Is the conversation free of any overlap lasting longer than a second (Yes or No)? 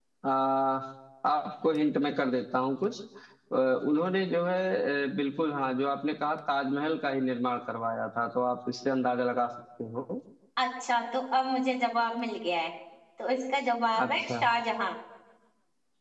Yes